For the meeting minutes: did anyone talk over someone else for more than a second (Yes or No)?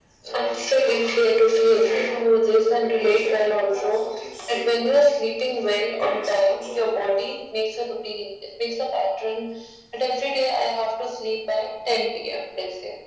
Yes